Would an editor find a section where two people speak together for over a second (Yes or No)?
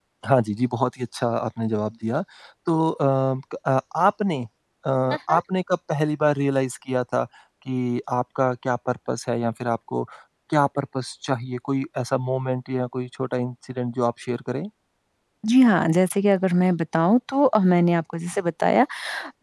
No